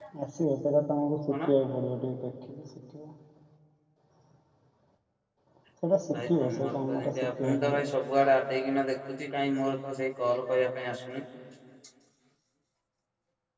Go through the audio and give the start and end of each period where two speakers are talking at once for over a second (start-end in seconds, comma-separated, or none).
6.1-7.9